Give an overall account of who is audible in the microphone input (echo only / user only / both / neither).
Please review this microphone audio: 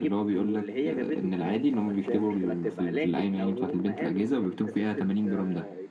echo only